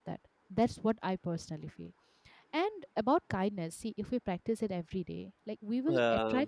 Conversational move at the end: listening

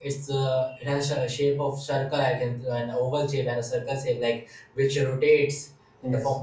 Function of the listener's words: listening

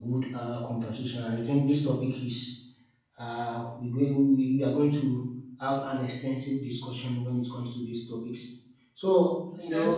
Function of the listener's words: listening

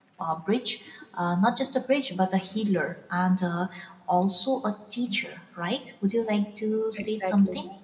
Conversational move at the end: listening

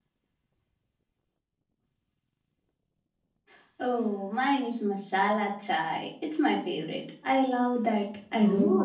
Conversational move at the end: taking over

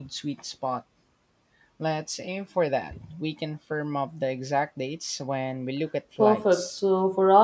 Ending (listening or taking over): taking over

